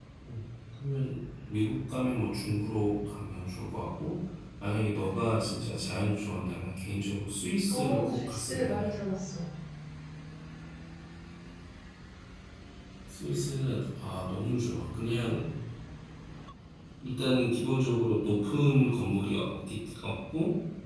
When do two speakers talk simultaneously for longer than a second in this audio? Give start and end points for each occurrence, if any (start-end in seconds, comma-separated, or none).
7.7-8.9